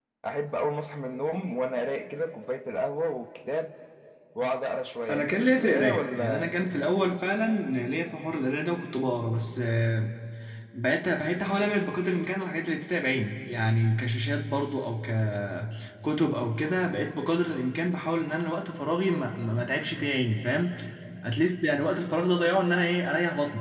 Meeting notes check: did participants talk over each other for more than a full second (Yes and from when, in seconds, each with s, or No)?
Yes, from 5.1 s